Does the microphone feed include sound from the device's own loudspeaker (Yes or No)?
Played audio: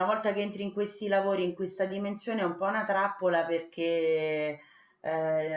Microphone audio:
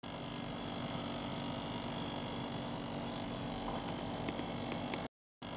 No